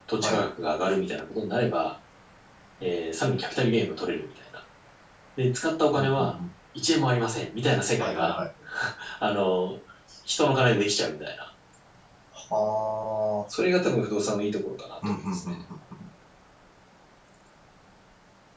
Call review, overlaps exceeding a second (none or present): none